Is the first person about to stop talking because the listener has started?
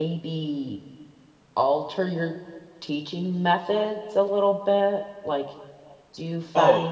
Yes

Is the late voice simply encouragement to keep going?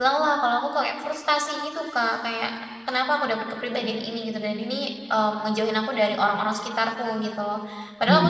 Yes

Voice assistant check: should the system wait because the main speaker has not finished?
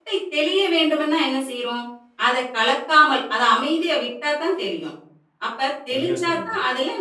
Yes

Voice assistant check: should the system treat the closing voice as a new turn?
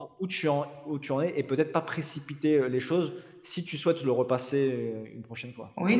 Yes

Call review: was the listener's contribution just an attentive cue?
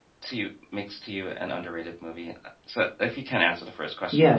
No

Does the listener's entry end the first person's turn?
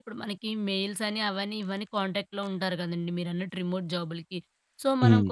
No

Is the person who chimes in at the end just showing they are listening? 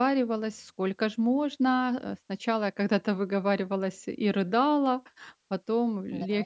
Yes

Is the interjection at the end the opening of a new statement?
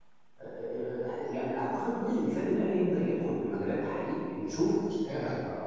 Yes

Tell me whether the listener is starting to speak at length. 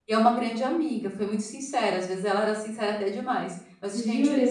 No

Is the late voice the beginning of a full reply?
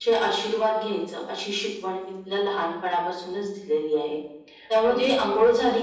No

